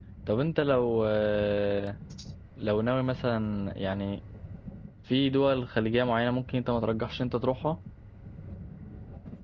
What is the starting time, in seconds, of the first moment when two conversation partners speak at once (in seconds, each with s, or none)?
none